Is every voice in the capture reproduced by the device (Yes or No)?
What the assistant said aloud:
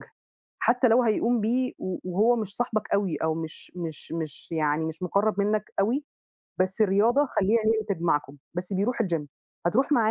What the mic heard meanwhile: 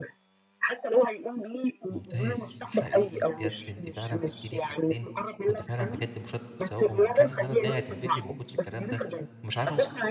No